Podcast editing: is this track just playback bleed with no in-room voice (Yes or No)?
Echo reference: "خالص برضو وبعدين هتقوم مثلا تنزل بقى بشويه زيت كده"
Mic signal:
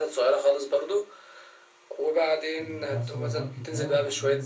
No